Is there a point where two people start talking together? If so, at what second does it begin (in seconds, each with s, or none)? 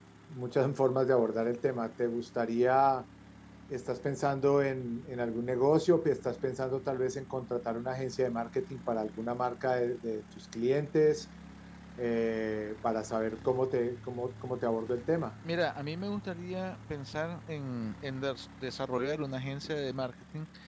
none